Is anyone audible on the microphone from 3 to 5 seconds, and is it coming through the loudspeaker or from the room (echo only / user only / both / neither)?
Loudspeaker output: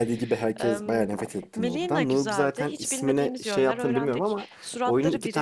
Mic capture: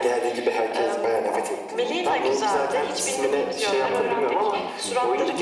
both